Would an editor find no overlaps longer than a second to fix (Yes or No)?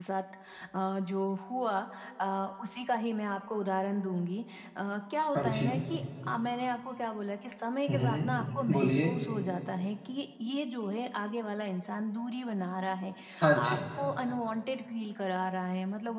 No